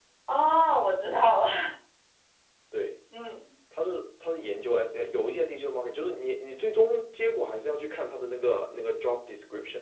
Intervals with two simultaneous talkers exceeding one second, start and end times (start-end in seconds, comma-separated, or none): none